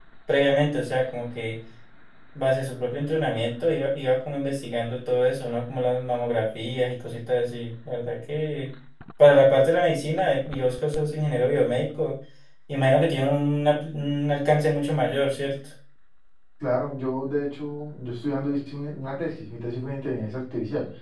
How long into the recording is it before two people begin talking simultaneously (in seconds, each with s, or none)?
none